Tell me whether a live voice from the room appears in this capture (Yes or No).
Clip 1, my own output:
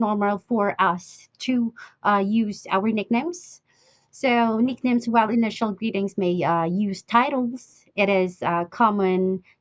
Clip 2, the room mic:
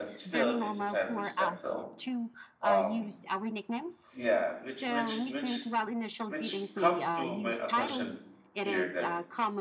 Yes